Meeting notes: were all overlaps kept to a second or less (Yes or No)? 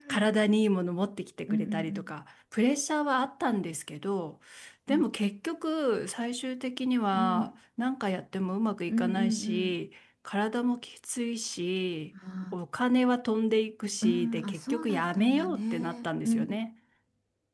No